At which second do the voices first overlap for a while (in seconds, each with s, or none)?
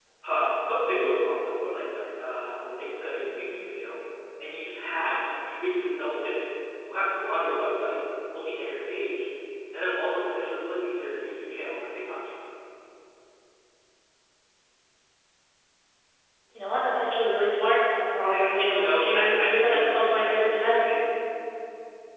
18.6 s